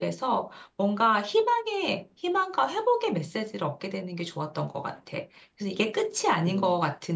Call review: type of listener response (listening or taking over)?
listening